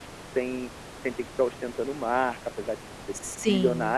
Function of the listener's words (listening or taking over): listening